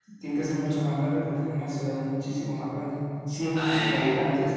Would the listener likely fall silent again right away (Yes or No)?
Yes